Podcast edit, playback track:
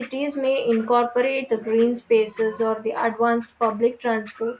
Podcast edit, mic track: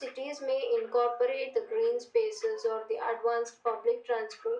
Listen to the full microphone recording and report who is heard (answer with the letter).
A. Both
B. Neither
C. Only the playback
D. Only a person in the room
C